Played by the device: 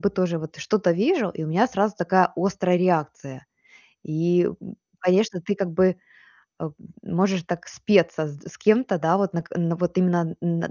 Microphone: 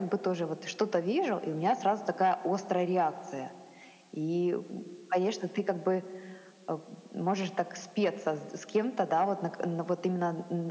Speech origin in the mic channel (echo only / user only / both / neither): echo only